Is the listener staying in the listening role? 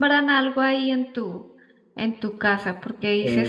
Yes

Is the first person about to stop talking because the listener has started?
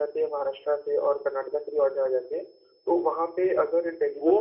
Yes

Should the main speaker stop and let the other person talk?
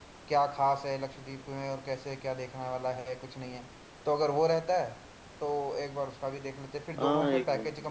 Yes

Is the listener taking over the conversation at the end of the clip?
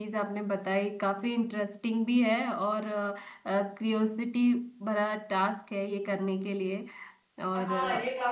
Yes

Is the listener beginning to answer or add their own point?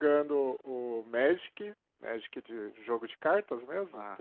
No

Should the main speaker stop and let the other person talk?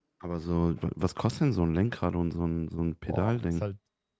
Yes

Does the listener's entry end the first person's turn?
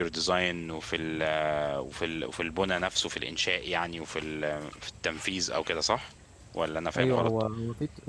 Yes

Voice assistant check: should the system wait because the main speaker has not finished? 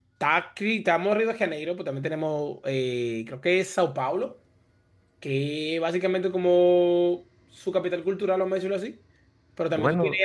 Yes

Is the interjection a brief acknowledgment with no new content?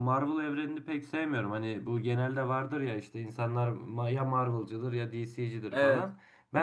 Yes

